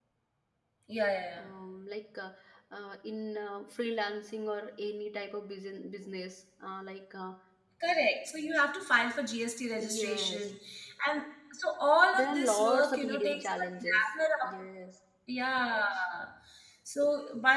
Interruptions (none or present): present